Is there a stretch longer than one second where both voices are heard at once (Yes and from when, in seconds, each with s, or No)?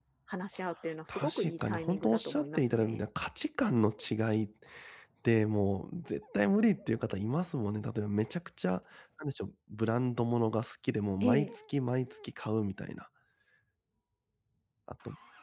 Yes, from 1.1 s